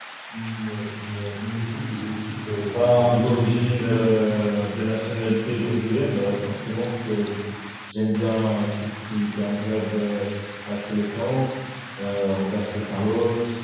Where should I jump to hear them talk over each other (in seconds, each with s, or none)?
2.7 s